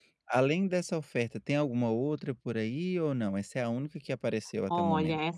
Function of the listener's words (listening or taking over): taking over